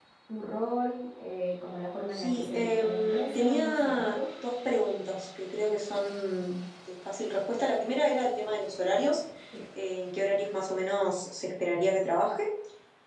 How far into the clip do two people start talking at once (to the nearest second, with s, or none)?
2 s